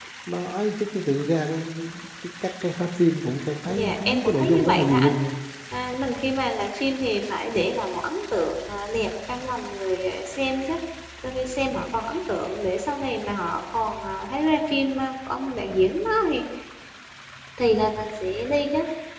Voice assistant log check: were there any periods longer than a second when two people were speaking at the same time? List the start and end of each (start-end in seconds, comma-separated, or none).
3.7-5.1